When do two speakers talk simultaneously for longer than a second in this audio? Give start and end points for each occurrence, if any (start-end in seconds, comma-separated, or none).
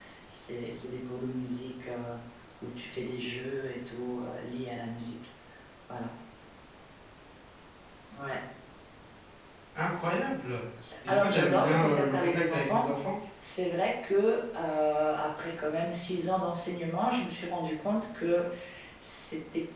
11.1-12.9